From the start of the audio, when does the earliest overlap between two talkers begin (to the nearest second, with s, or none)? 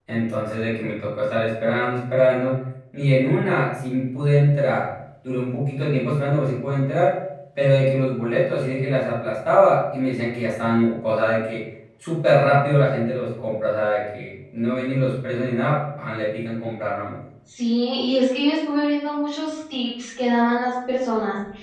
none